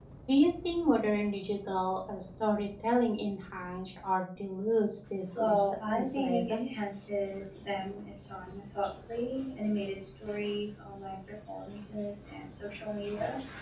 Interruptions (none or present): present